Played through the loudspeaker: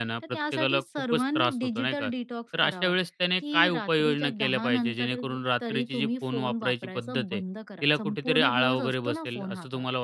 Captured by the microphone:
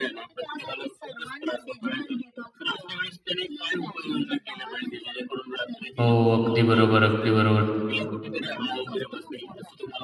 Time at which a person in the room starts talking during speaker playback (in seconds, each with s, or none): 6.0 s